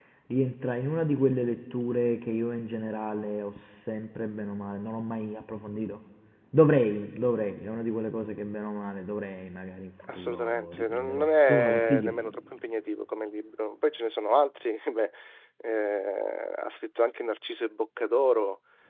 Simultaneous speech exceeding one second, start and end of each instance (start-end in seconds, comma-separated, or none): 10.1-12.1